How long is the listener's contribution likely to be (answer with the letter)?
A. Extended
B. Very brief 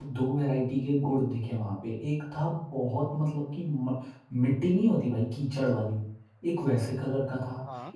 B